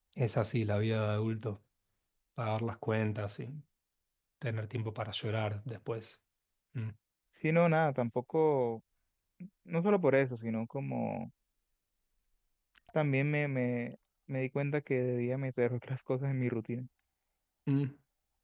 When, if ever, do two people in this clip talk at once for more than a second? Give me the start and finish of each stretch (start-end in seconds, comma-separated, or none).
none